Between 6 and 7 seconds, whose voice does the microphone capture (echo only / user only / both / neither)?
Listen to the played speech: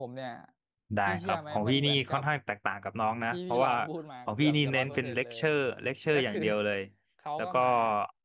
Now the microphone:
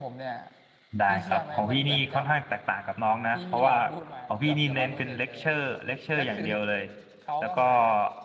echo only